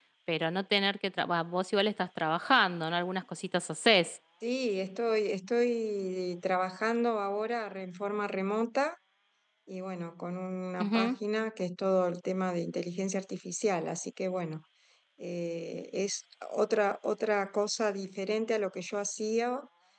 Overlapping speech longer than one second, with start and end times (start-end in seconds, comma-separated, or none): none